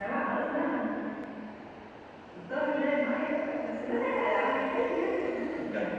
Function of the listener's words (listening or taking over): taking over